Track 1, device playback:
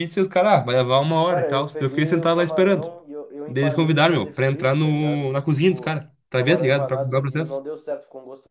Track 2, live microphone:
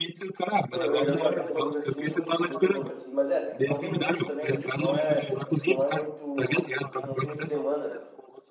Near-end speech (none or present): present